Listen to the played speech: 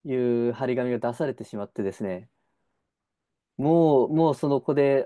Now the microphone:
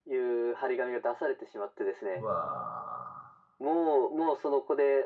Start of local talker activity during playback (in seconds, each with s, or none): 2.1 s